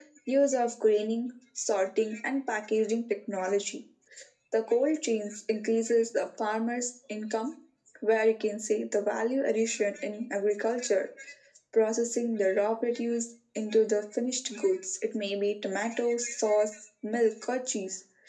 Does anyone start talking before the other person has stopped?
No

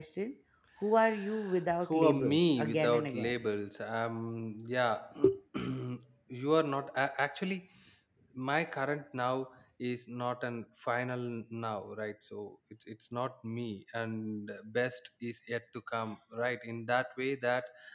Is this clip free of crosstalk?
No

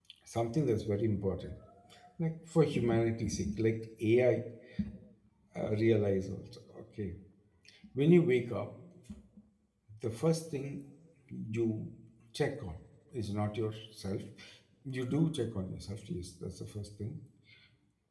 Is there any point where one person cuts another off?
No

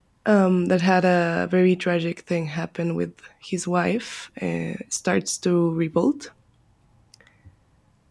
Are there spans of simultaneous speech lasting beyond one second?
No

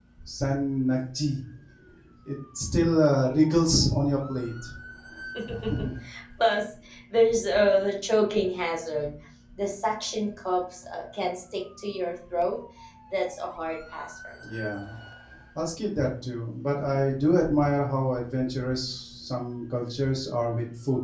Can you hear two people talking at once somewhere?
No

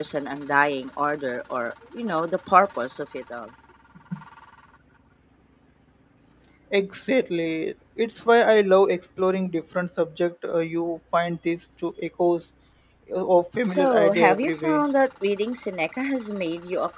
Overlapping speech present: Yes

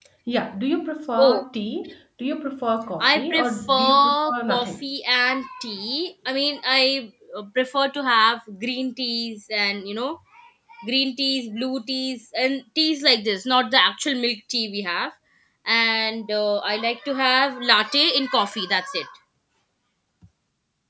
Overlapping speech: Yes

